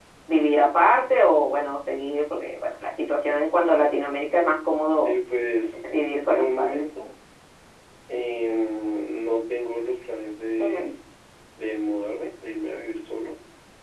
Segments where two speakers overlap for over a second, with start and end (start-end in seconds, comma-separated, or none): none